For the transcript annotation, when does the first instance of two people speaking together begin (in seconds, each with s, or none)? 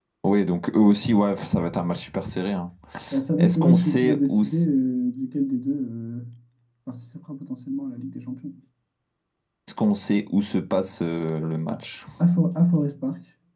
3.4 s